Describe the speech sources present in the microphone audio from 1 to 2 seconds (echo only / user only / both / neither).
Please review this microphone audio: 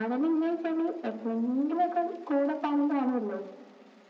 echo only